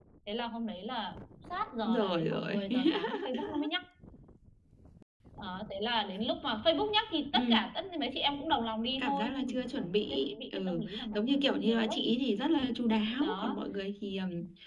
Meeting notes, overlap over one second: present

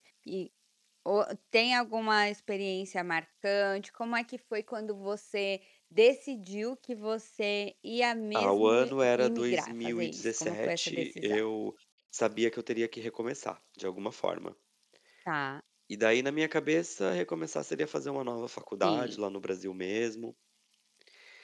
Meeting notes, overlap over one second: present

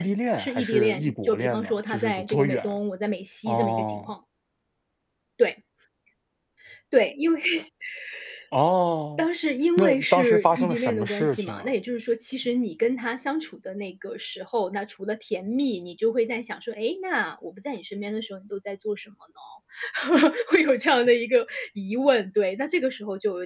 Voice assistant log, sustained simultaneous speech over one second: present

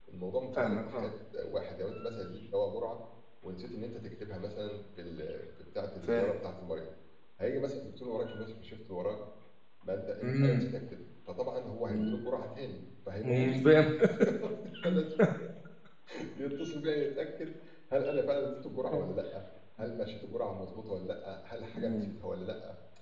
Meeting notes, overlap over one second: none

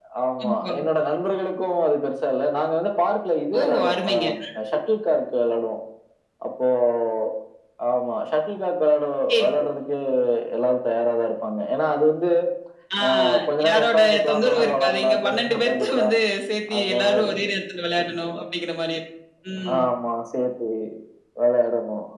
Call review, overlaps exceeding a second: present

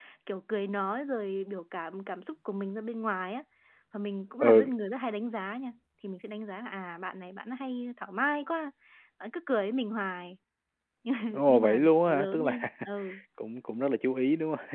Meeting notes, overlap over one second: present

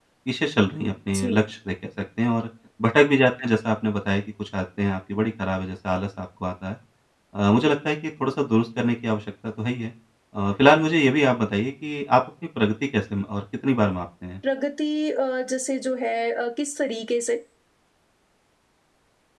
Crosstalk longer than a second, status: none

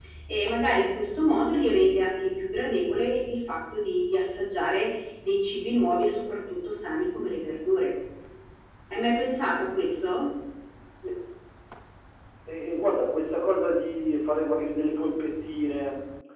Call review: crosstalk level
none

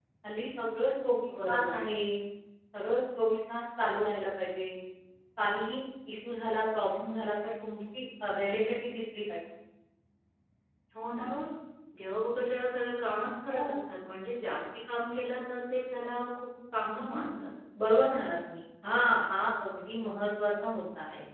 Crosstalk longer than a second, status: none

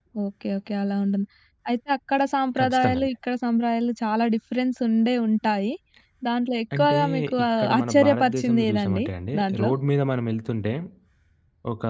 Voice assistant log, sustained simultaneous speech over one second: present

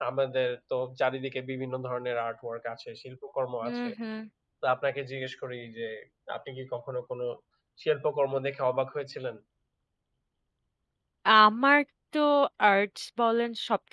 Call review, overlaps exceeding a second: none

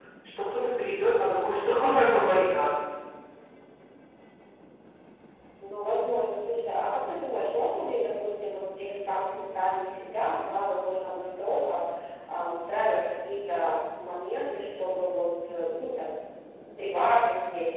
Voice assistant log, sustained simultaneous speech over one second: none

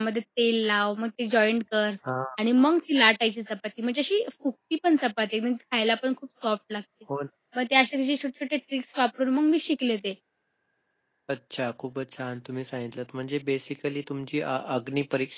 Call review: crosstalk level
none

